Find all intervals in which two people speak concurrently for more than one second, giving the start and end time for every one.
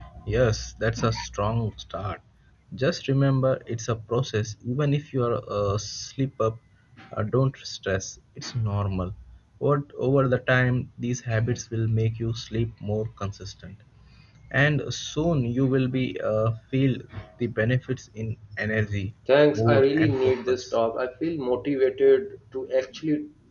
19.5-20.8

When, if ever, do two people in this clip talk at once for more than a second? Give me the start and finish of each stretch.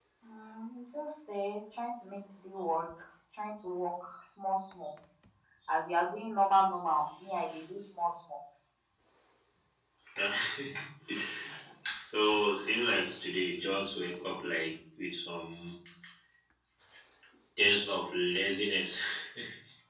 none

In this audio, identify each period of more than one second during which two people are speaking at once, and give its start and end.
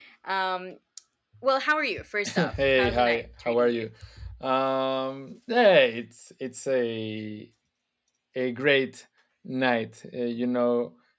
2.3-3.8

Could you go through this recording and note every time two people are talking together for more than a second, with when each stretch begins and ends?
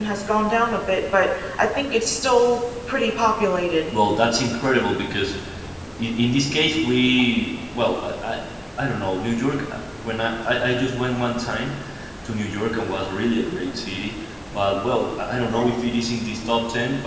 none

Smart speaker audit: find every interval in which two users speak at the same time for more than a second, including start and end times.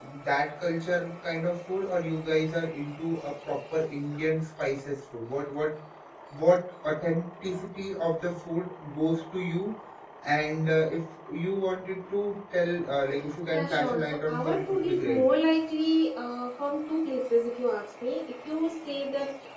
13.5-15.2

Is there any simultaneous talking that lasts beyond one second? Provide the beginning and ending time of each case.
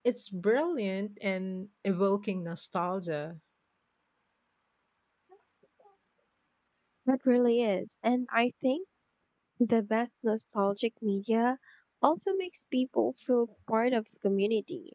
none

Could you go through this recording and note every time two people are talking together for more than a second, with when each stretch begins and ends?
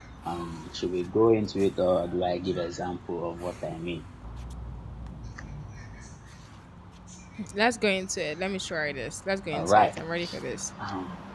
none

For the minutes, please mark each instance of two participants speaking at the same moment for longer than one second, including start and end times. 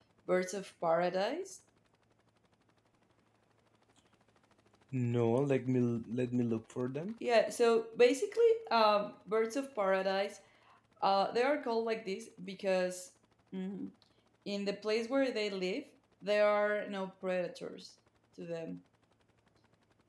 none

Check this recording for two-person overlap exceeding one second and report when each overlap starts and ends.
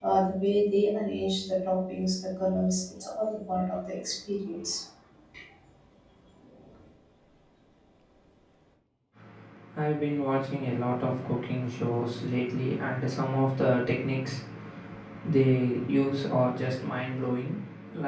none

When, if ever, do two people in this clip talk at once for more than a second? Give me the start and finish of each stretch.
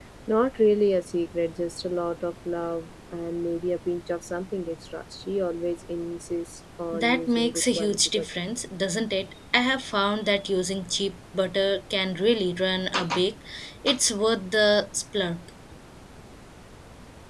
6.9-8.3

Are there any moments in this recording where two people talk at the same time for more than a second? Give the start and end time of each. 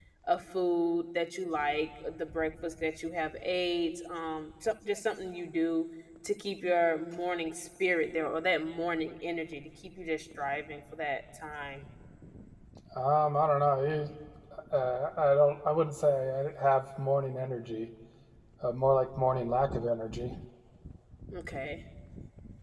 none

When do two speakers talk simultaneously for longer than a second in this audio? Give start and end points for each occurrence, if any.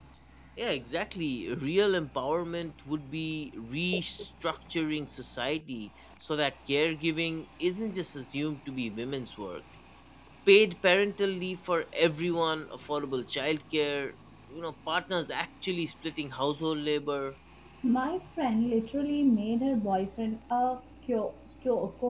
none

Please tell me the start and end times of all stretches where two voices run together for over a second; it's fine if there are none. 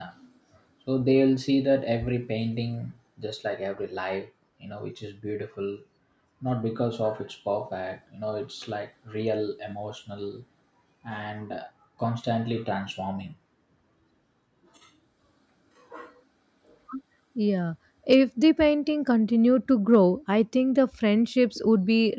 none

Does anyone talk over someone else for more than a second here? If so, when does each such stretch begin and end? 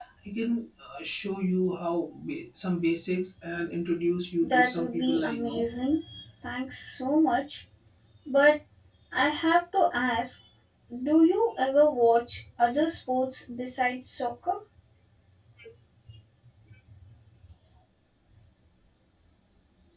4.4-5.7

